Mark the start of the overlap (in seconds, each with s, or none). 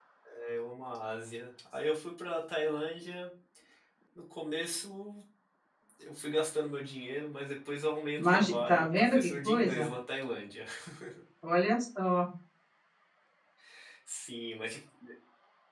8.2 s